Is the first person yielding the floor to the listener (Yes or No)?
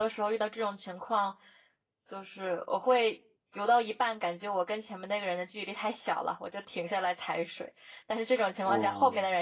No